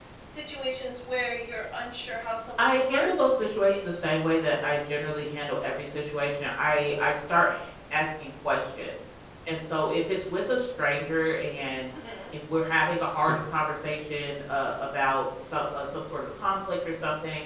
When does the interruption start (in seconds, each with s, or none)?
2.6 s